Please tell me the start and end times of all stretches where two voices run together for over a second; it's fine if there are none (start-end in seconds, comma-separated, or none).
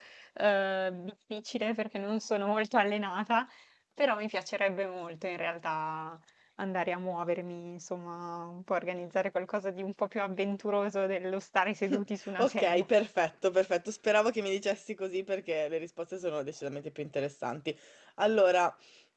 none